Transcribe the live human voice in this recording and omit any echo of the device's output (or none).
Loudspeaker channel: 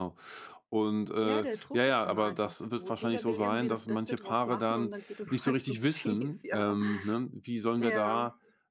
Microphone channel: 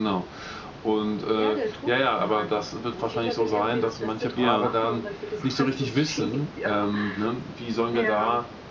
ja,